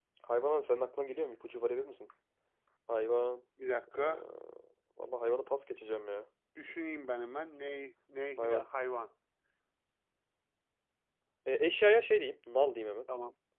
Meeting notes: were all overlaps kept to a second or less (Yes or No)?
Yes